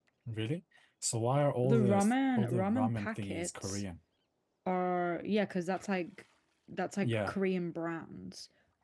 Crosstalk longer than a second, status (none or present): present